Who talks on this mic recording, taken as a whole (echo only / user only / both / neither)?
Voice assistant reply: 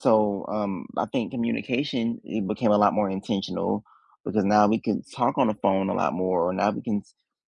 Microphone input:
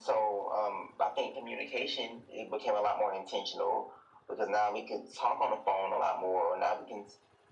echo only